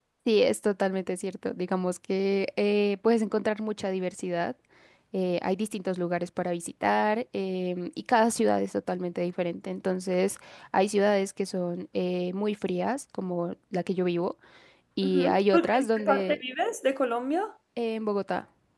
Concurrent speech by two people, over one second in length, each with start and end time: 15.0-16.4

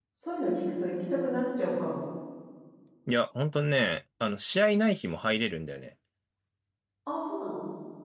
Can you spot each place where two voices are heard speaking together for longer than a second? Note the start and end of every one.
none

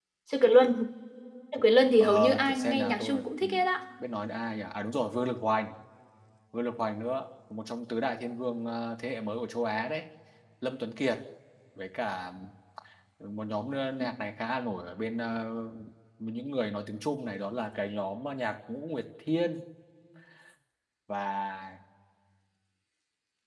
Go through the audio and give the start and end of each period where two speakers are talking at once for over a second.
2.0-3.6

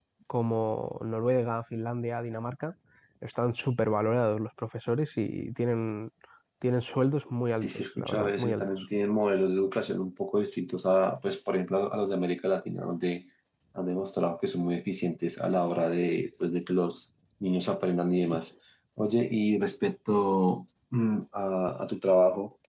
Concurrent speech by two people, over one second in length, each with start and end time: 7.6-8.9

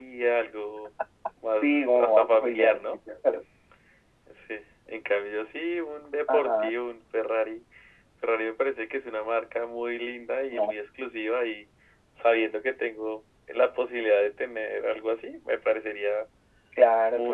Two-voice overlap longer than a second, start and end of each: 1.6-2.8

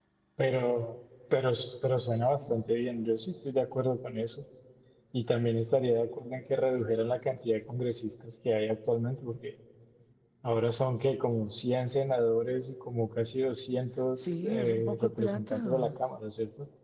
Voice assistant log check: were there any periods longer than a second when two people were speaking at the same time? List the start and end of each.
14.2-15.9

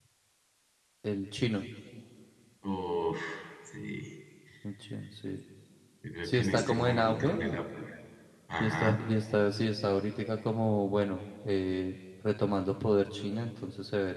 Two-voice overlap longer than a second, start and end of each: 6.2-7.6

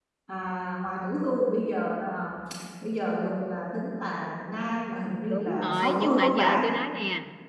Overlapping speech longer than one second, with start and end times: 5.3-6.6

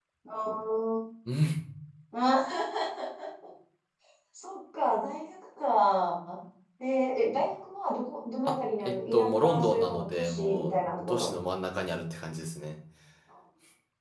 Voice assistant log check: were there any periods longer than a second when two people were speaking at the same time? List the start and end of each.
8.4-11.3

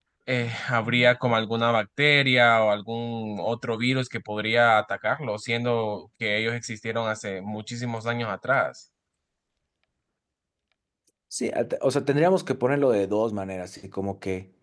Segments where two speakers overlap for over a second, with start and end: none

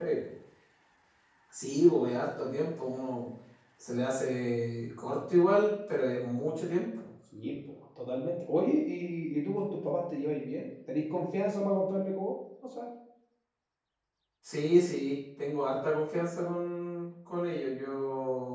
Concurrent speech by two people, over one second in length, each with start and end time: none

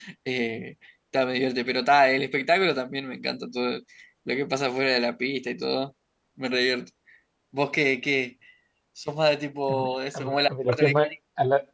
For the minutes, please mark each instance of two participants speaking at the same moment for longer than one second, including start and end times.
9.7-11.1

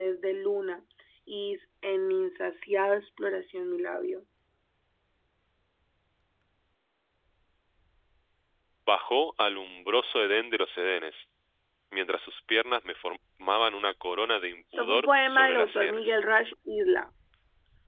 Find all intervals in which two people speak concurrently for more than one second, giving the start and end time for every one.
14.7-16.2

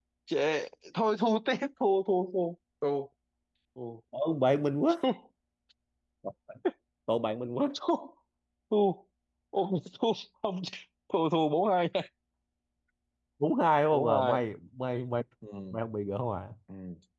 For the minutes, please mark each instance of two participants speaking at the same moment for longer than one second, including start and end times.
none

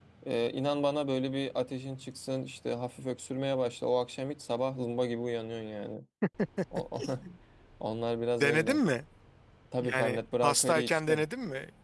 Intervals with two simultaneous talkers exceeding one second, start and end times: 9.8-11.2

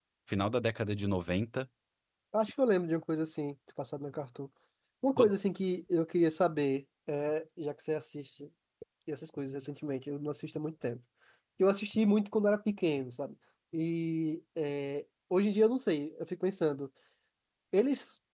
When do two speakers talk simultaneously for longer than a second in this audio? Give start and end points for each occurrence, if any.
none

